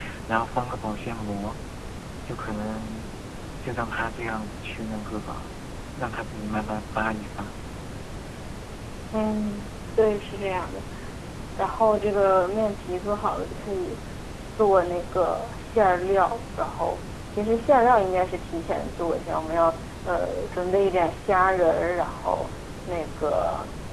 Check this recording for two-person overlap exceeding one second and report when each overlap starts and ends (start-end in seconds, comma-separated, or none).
none